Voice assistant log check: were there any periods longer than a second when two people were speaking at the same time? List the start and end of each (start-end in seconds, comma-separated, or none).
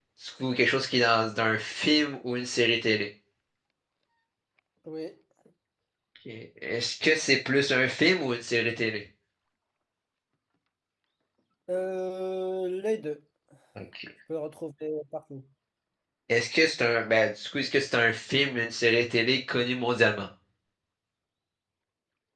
none